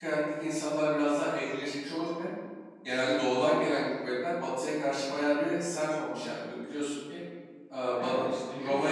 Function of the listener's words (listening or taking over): taking over